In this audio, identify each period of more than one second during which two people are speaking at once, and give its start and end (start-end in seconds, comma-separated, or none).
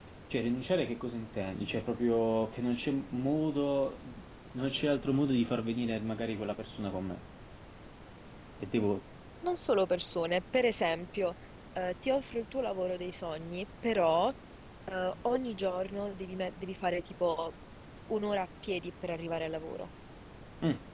none